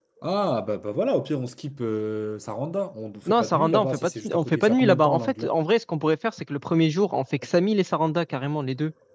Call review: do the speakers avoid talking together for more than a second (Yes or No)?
No